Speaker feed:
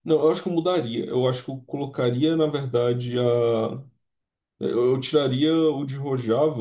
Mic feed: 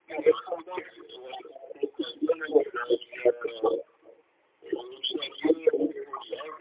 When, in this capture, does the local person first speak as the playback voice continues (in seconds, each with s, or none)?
none